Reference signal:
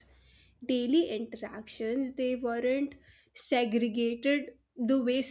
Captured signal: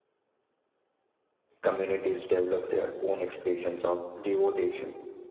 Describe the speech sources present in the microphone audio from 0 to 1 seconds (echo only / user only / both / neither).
neither